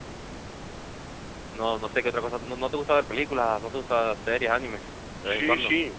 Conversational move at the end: taking over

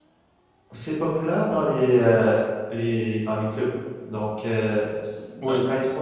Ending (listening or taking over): listening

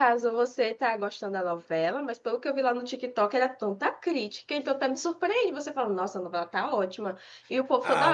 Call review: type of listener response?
taking over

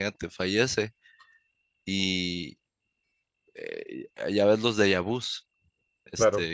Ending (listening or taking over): listening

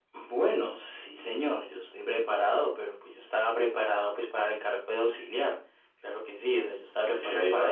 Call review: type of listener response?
taking over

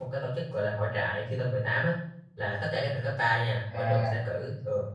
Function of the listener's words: listening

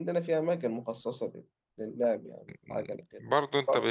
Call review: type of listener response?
taking over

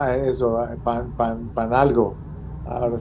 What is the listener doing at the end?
taking over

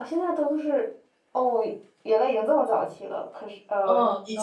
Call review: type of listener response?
taking over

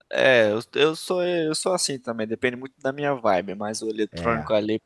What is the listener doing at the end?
listening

